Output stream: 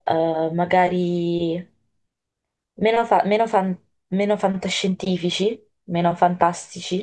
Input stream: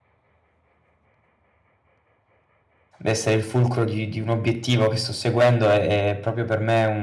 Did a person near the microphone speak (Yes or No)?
Yes